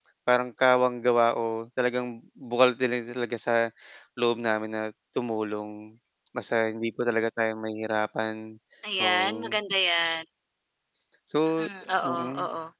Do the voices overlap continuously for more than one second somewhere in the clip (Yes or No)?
No